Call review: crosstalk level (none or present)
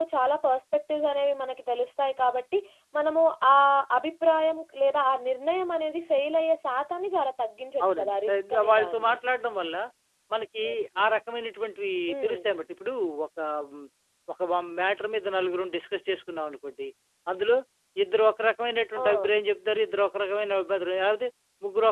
present